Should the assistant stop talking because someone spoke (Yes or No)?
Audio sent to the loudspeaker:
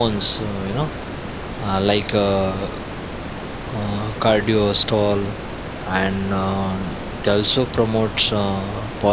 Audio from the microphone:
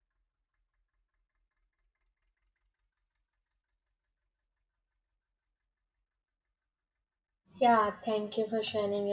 Yes